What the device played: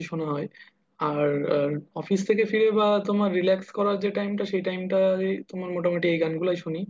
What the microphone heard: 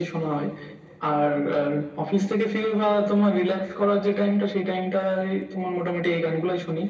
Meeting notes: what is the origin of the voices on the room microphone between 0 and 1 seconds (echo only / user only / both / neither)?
echo only